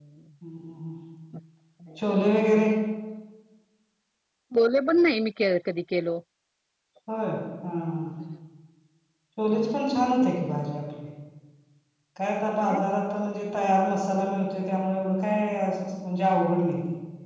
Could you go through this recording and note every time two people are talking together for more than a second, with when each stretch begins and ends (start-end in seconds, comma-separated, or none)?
none